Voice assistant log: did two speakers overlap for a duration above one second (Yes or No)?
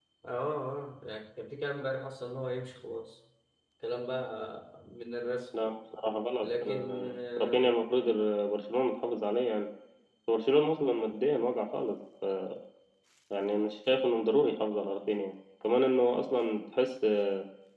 Yes